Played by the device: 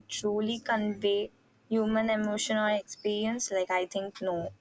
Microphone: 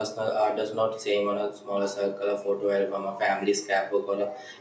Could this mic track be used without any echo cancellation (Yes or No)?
Yes